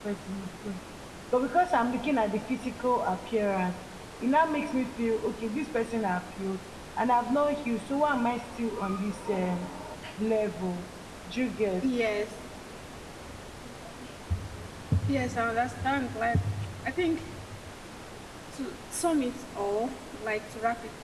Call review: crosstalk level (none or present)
none